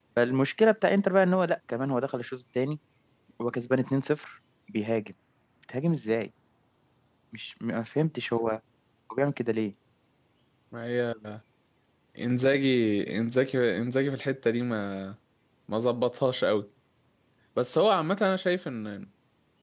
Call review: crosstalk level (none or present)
none